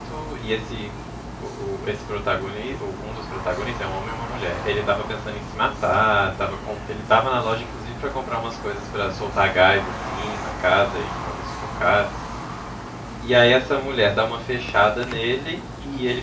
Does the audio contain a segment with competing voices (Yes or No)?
No